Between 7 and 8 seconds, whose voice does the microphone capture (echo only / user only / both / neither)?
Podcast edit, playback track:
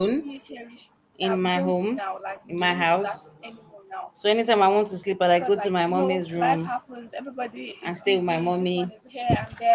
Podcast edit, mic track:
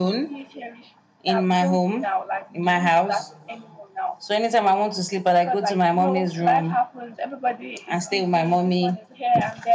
echo only